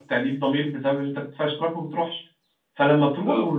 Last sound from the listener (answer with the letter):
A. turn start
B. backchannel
B